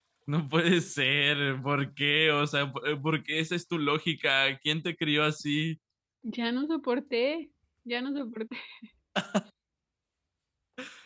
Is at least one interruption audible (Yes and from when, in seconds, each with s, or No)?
No